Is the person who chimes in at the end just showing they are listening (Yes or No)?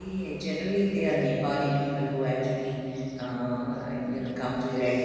No